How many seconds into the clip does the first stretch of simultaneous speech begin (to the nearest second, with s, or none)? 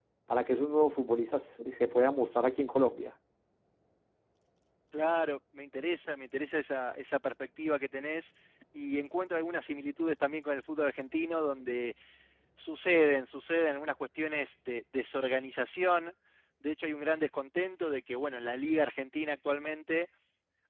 none